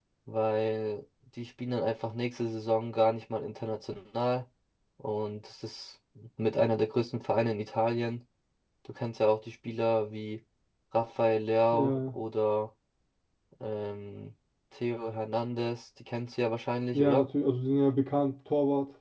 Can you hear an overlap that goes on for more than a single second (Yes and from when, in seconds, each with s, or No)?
No